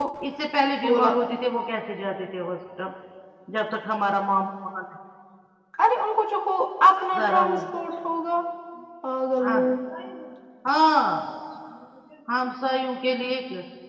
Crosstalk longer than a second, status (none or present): none